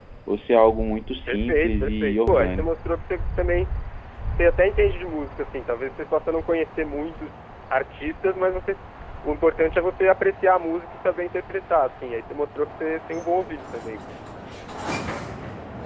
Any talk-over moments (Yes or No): Yes